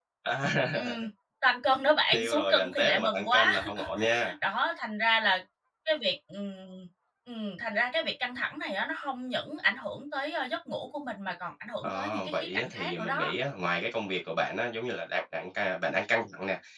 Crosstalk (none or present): present